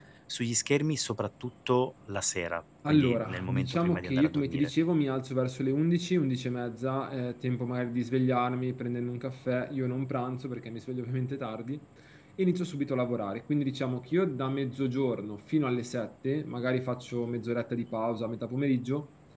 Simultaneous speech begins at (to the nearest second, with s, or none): 3 s